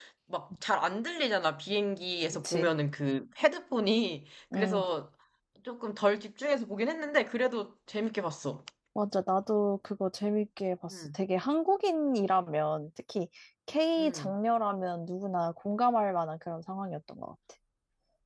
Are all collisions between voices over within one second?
Yes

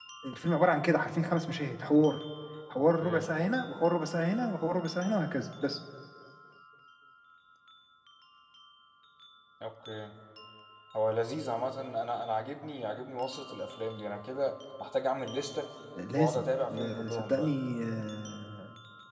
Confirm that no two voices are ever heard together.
No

